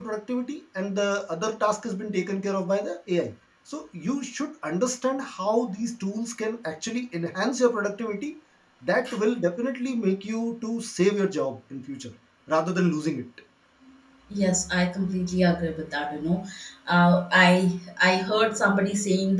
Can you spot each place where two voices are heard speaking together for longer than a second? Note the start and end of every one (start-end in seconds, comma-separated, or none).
none